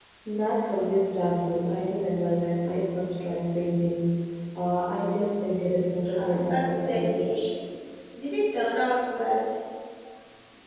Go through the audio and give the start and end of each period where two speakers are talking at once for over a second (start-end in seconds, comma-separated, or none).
6.1-7.4